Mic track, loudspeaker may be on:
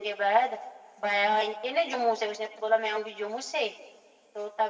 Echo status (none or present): present